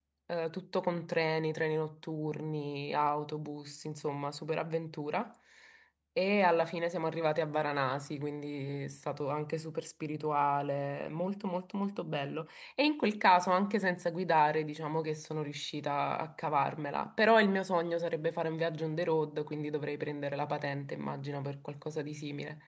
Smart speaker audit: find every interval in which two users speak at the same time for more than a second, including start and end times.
none

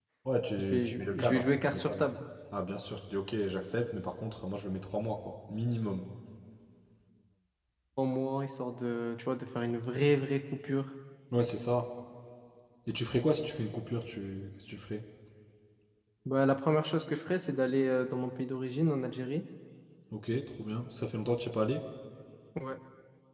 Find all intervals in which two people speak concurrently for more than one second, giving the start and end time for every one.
0.6-2.0

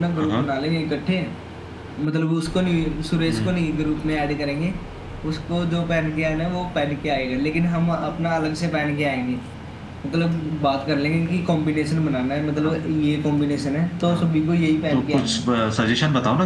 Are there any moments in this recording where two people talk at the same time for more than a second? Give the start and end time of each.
none

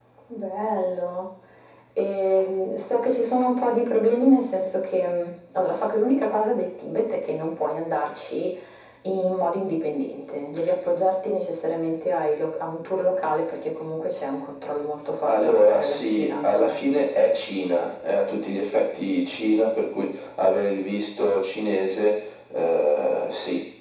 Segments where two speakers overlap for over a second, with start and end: 15.2-16.8

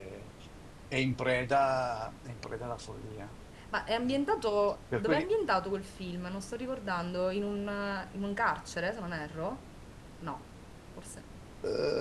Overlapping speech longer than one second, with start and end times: none

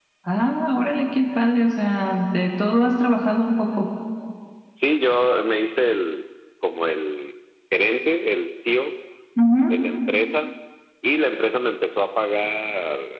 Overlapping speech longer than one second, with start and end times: none

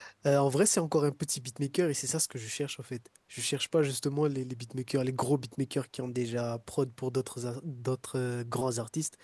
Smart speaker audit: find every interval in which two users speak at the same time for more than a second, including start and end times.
none

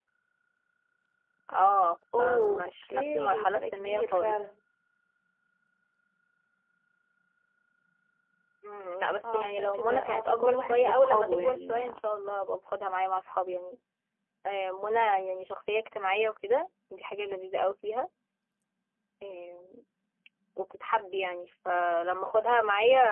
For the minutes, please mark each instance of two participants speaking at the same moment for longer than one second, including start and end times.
2.2-4.4, 9.2-12.0

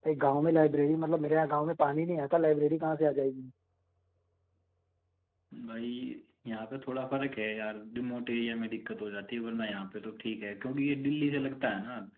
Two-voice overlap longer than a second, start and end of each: none

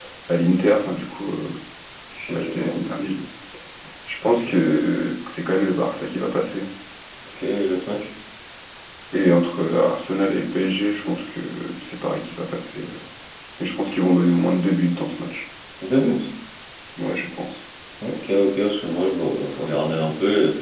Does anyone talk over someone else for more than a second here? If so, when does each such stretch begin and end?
none

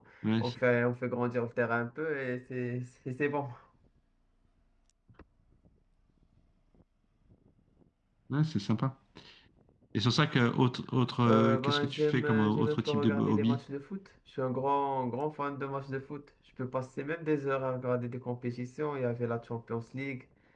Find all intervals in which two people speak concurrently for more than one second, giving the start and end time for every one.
11.3-13.6

